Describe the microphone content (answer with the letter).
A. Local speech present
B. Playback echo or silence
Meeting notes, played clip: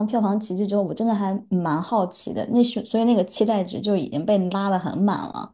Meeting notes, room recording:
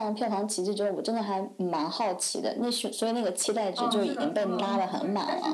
A